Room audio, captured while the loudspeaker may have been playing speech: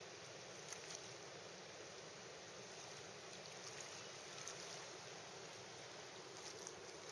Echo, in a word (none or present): none